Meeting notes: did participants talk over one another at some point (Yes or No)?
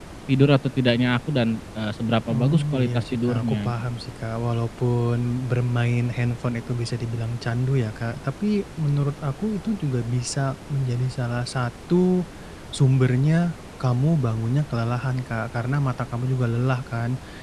Yes